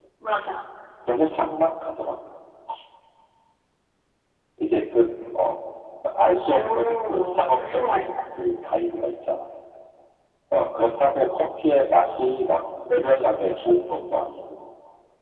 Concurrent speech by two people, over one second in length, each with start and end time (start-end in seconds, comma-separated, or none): 6.5-8.4